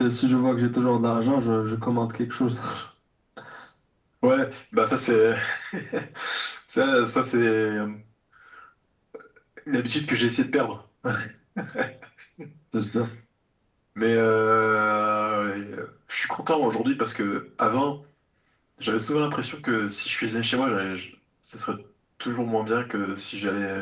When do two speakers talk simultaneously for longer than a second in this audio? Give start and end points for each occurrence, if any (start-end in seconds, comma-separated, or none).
none